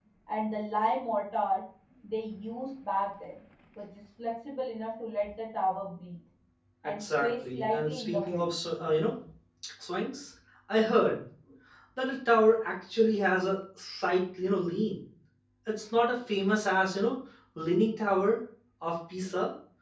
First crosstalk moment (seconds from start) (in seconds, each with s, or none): 6.8 s